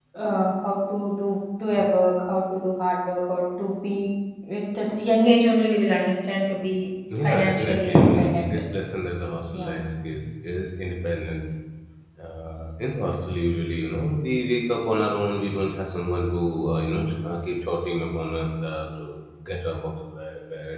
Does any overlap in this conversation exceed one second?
Yes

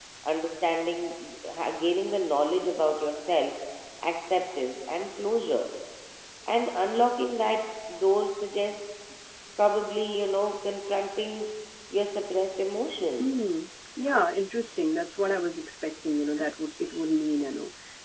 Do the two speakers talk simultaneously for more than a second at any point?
No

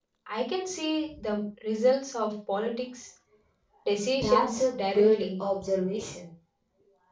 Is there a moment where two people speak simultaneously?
Yes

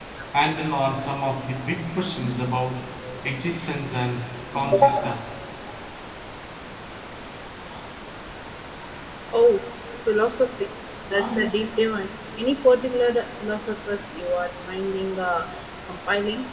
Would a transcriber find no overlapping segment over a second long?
Yes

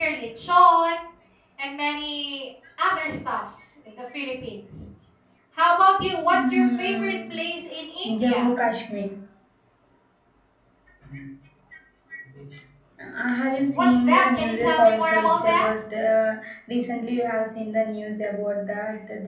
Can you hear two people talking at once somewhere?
Yes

